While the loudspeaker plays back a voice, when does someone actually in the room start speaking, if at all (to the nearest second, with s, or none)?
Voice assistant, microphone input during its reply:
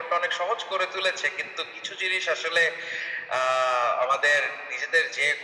none